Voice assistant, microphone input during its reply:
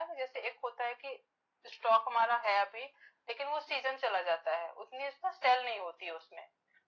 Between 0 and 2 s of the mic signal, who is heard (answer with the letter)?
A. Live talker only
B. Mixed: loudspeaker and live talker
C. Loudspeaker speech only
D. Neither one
C